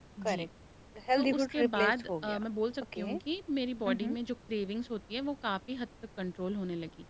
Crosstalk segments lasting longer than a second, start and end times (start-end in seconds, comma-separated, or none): 1.2-2.4